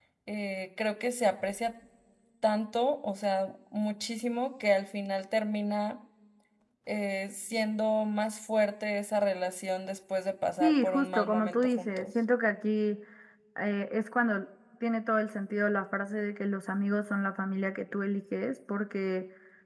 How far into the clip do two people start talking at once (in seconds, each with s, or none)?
10.6 s